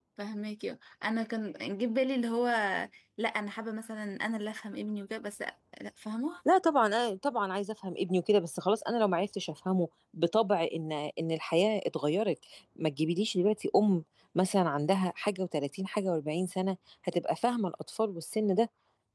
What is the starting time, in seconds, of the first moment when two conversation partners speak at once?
none

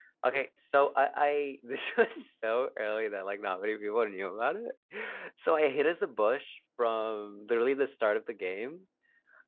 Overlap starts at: none

